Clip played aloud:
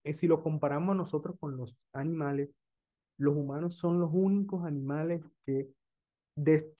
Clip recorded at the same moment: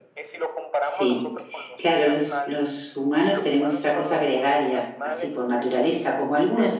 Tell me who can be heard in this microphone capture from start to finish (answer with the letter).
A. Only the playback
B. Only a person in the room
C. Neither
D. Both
D